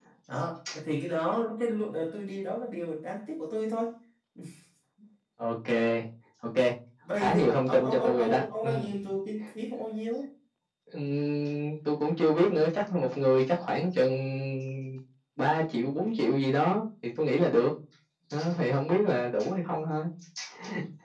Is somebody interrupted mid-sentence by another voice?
Yes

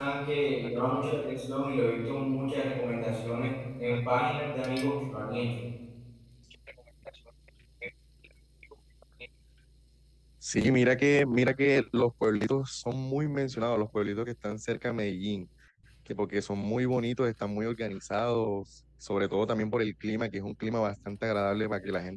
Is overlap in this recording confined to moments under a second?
Yes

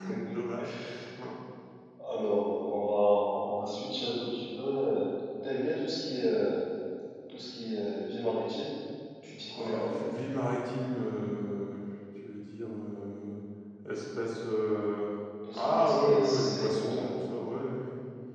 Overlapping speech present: Yes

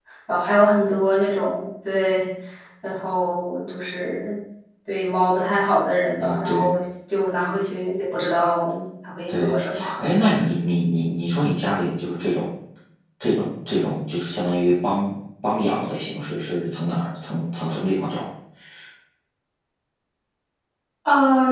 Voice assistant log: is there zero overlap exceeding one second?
Yes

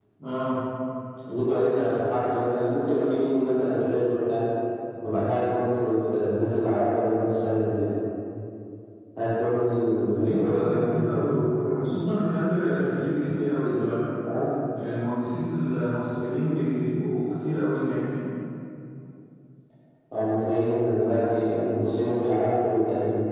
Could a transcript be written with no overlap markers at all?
No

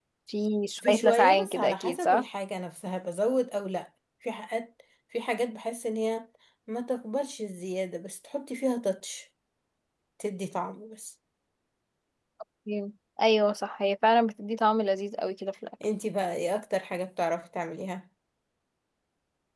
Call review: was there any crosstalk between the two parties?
Yes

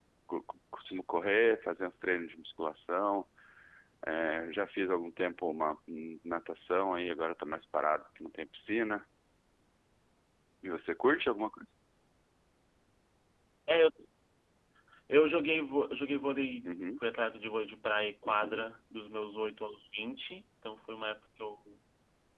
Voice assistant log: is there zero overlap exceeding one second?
Yes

